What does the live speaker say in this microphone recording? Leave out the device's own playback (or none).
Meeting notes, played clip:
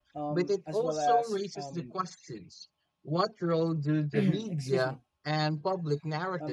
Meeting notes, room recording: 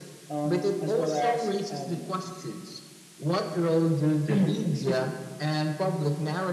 none